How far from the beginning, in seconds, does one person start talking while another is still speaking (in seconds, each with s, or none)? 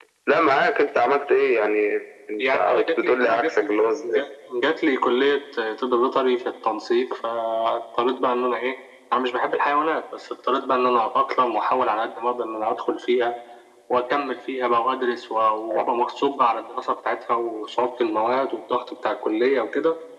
2.4 s